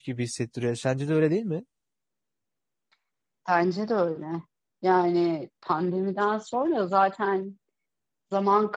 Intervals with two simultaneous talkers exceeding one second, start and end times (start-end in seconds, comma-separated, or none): none